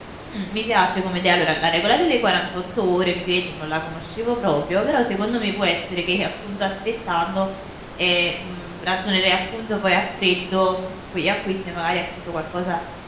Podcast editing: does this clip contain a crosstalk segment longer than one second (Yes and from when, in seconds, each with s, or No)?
No